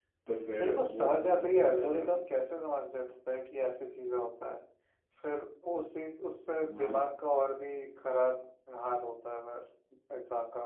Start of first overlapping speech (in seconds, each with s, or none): 0.6 s